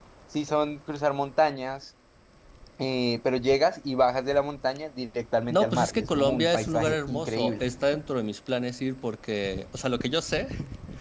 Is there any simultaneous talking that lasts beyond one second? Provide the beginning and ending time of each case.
5.5-7.7

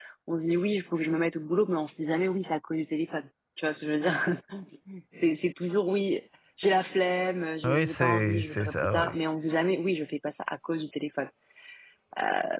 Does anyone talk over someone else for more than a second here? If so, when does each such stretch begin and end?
7.6-9.2

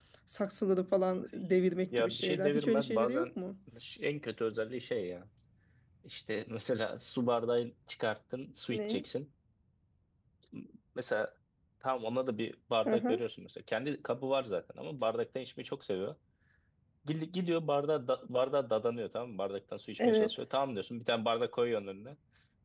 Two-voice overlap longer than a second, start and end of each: 1.9-3.3

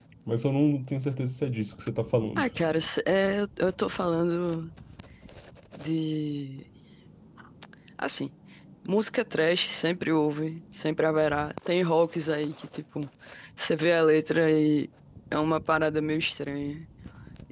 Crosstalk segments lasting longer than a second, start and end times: none

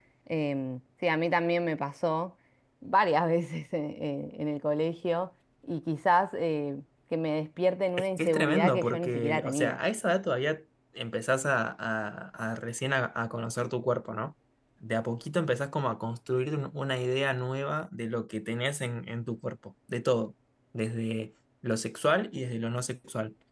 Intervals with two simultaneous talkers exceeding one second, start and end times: 8.0-9.8

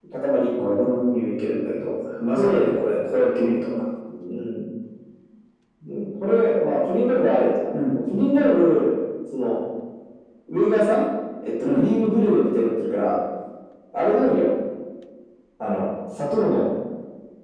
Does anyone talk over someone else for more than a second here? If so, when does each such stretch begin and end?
none

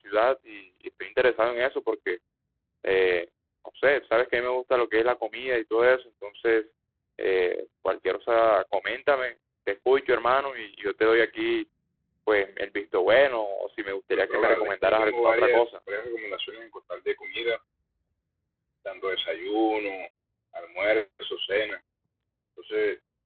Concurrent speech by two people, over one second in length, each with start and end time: 14.1-15.8

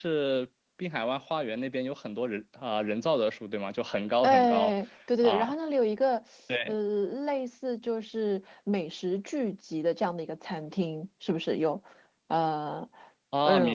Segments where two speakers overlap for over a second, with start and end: none

